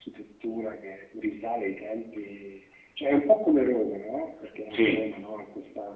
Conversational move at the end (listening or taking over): listening